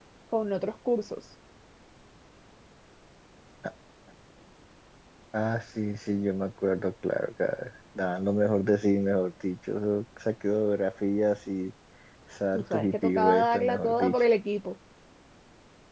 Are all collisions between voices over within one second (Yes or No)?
No